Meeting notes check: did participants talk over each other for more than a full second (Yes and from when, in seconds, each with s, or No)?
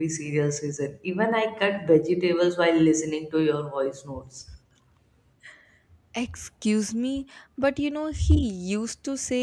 No